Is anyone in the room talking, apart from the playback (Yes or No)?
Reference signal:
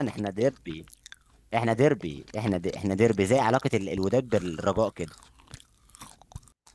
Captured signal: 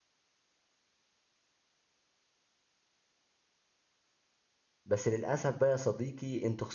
Yes